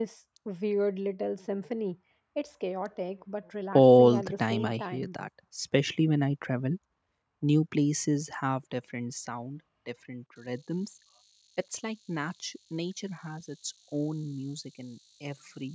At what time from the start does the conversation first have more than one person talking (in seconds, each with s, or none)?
3.7 s